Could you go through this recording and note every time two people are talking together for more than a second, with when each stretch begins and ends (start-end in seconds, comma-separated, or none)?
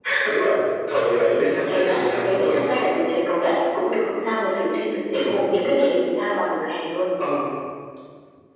1.0-2.8